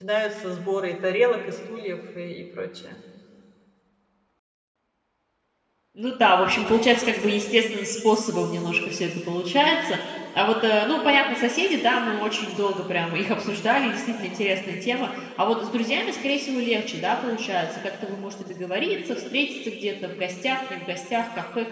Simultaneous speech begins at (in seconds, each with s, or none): none